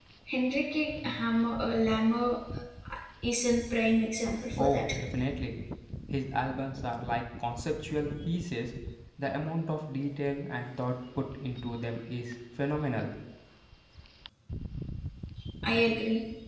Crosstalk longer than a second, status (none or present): none